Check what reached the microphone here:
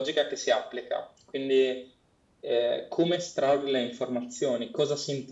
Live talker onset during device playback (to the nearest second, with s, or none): none